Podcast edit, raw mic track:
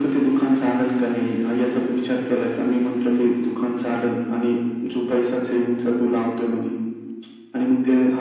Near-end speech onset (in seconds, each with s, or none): none